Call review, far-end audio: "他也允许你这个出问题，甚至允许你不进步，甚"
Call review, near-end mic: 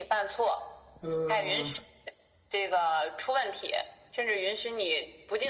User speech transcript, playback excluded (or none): 呃，